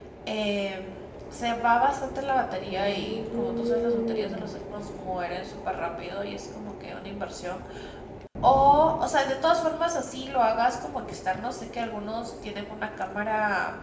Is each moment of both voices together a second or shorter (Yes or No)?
No